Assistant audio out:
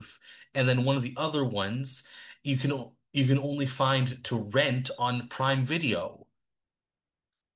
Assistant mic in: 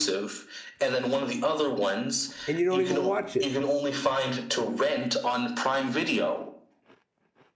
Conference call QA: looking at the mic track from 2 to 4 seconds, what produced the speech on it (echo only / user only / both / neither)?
both